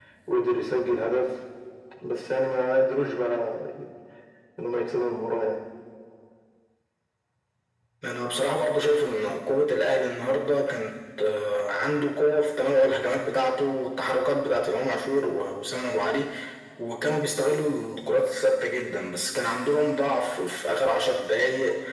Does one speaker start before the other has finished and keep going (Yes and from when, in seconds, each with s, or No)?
No